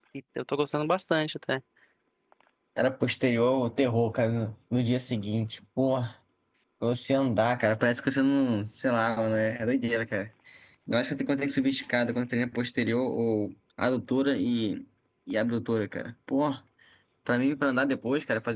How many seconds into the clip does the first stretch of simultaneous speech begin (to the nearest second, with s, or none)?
none